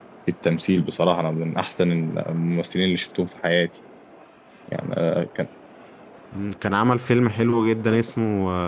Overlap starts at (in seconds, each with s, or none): none